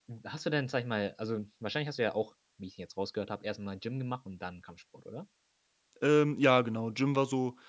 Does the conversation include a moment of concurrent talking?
No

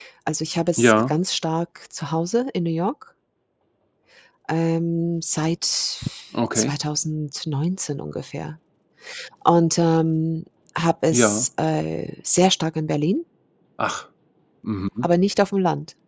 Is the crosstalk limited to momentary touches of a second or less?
Yes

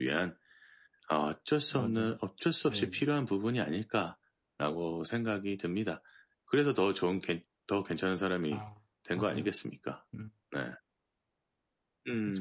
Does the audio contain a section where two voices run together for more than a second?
No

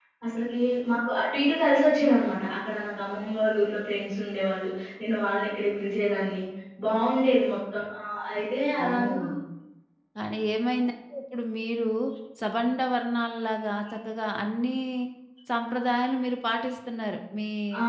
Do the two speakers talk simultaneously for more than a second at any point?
No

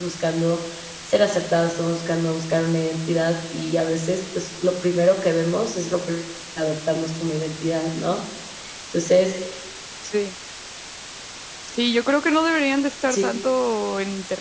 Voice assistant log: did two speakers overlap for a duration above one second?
No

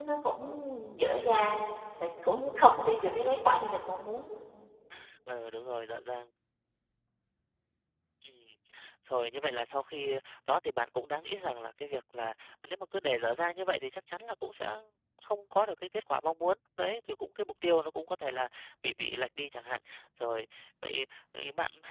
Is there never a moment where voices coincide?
Yes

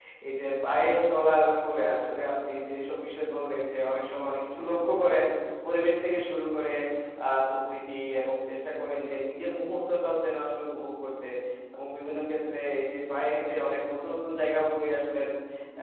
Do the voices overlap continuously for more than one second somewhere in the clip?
No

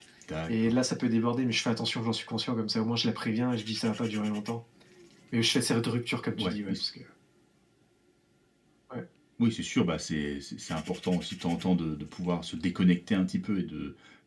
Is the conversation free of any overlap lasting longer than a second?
Yes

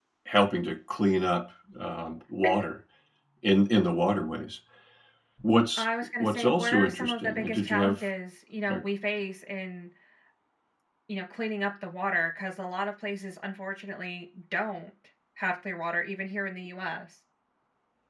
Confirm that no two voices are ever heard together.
No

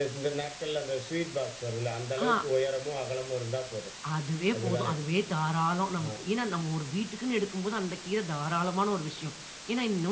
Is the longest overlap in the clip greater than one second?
No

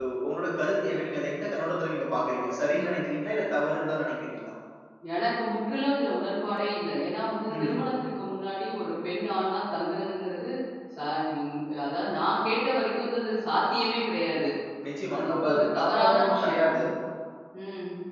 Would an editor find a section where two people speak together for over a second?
Yes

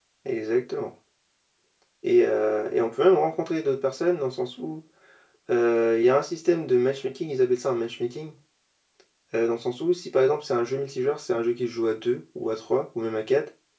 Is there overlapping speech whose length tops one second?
No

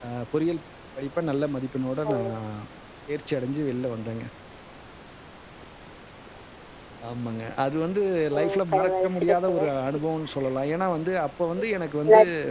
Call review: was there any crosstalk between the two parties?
Yes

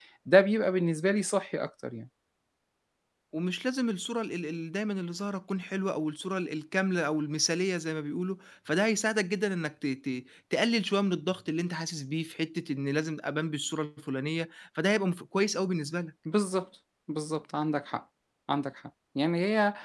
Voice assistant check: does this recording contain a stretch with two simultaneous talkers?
No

